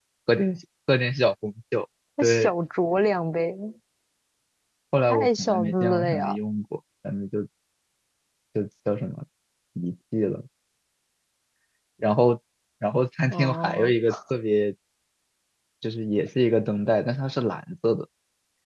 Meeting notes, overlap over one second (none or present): present